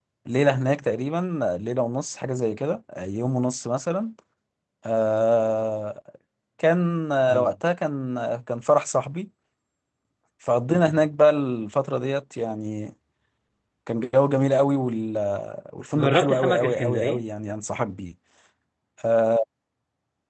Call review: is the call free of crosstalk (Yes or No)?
No